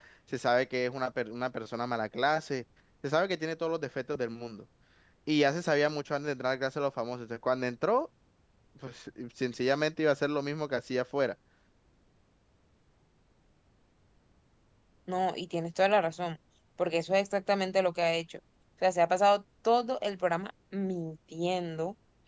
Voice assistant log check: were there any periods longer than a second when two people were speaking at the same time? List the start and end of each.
none

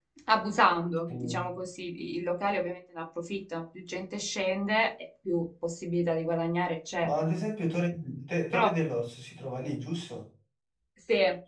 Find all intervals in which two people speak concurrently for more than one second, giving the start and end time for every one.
none

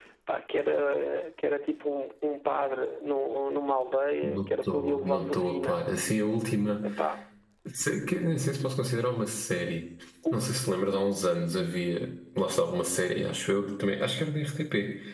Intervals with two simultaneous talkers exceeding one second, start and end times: 4.2-5.8

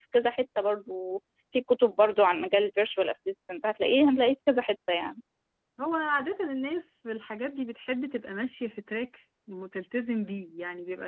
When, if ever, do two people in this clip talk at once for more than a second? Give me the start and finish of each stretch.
none

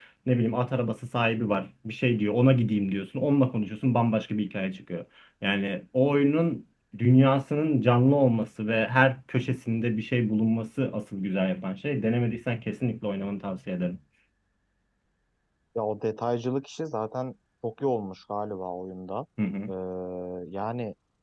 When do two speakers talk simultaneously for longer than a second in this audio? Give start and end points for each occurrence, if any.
none

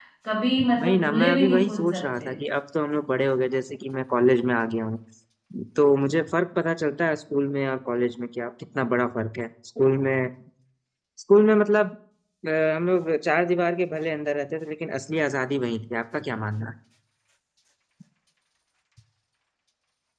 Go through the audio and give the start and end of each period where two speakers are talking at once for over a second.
0.8-2.3

